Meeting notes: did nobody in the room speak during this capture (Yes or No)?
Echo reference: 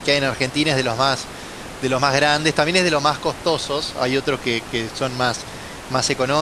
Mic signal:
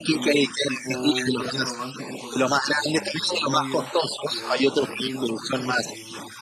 No